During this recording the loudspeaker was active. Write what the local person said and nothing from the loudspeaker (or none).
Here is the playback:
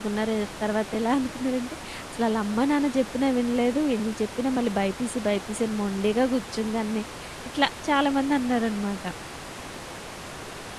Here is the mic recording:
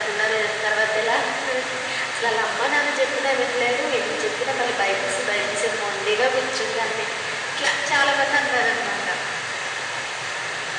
none